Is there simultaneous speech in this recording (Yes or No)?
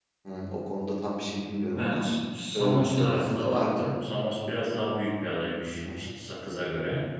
Yes